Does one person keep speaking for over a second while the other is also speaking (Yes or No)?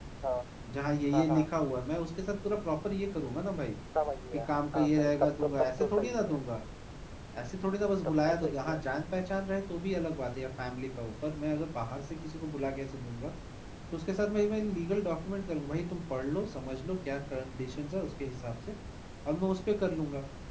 Yes